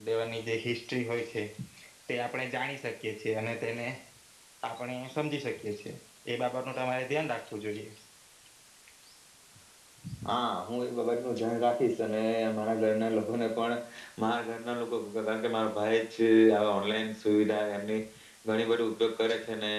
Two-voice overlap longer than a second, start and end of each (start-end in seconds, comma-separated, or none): none